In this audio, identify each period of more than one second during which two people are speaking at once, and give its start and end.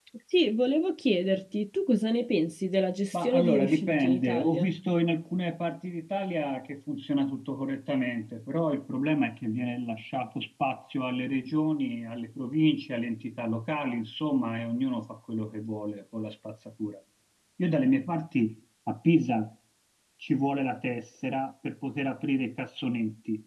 3.1-4.7

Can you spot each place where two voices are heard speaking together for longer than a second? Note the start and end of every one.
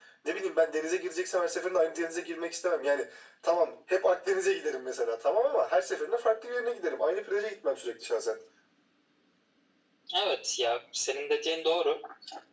none

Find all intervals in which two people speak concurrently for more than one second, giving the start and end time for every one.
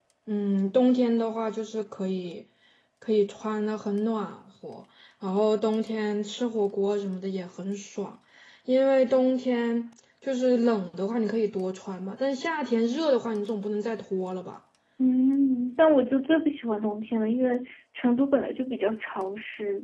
none

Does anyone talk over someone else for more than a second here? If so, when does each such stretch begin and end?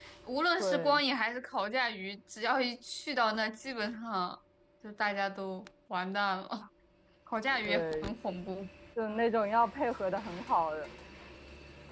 none

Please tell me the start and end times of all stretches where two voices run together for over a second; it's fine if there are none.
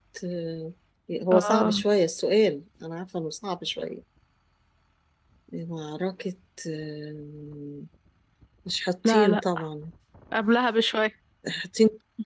none

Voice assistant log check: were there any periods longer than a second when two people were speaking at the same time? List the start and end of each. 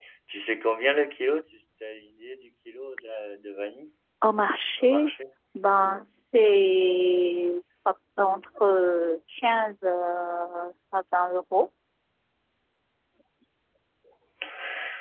none

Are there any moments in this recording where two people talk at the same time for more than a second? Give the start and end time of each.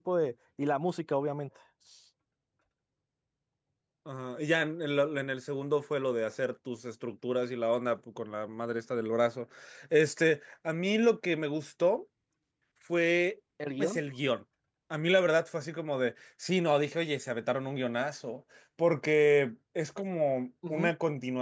none

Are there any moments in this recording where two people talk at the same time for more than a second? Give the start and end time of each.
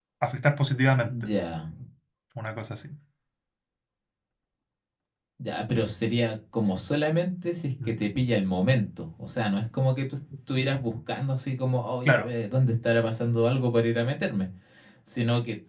none

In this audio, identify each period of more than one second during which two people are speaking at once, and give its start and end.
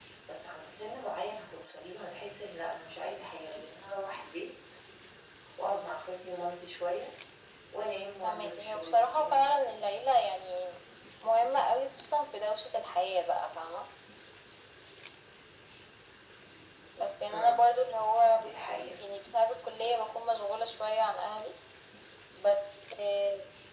8.2-9.9

